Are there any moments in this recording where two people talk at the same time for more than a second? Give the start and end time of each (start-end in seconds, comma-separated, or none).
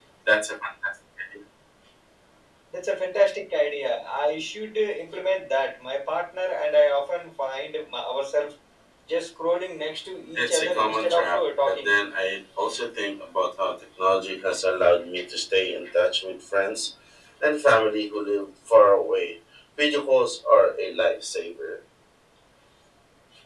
10.3-11.9